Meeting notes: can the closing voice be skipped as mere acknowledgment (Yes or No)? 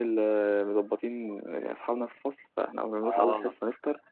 Yes